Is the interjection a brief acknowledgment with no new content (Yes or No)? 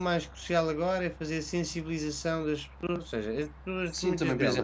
No